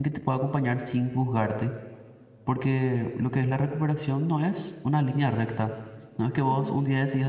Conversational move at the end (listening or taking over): listening